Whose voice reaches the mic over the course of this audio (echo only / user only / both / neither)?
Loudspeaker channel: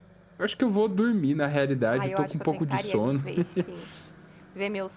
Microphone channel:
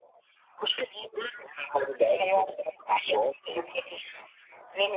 echo only